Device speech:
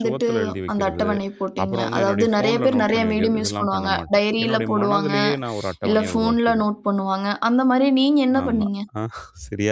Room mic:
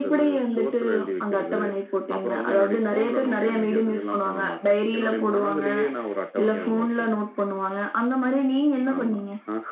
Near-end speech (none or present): none